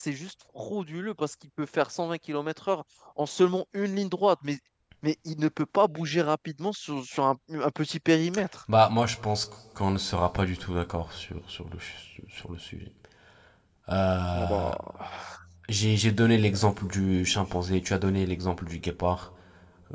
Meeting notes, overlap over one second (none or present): none